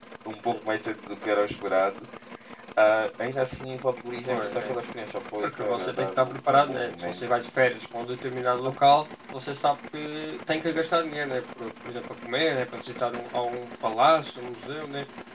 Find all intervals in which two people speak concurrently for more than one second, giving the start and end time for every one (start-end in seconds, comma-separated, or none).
5.4-7.2